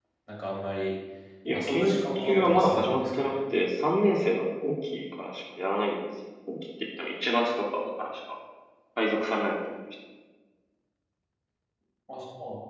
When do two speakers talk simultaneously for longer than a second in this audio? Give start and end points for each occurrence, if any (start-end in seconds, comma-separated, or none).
1.5-3.3